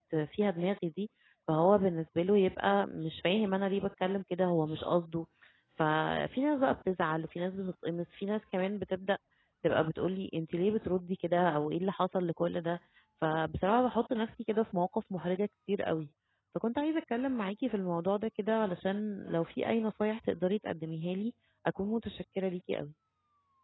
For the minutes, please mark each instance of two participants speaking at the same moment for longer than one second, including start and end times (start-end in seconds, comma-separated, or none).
none